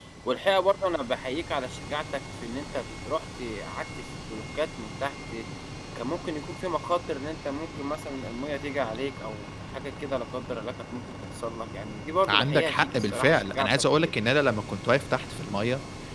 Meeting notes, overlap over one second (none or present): present